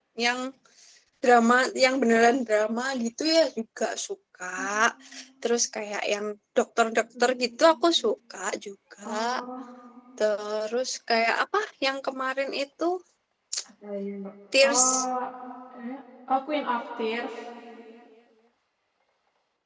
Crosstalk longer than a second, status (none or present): none